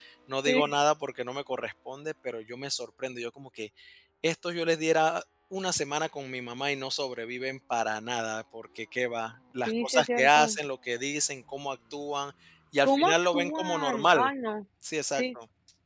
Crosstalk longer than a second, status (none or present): present